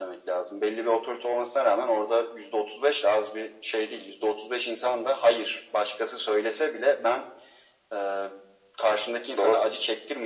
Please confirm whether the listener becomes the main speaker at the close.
No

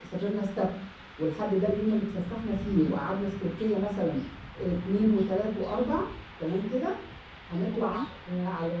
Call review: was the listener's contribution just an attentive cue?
Yes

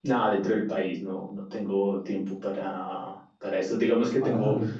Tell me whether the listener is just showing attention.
Yes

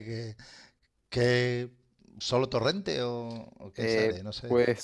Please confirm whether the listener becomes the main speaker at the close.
Yes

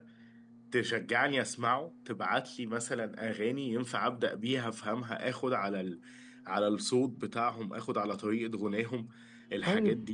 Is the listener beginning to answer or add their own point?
Yes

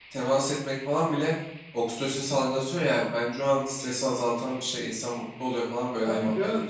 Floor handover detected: Yes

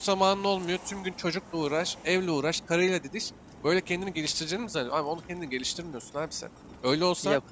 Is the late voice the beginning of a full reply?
No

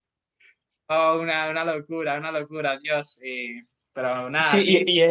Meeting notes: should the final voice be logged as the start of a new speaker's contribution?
Yes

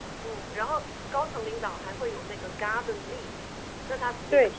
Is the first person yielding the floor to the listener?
No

